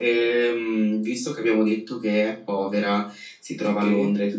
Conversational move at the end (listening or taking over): listening